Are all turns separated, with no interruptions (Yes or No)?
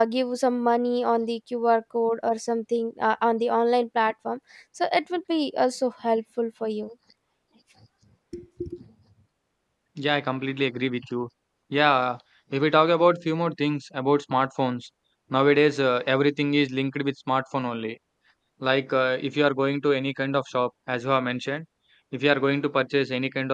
Yes